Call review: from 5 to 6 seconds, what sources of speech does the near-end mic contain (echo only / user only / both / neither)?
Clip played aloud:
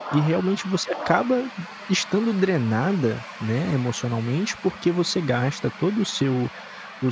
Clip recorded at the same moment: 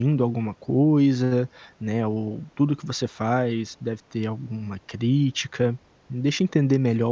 user only